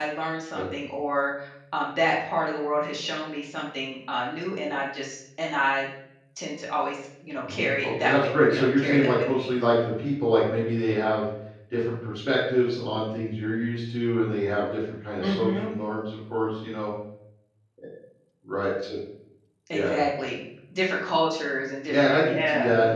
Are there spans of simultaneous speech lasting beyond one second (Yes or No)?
Yes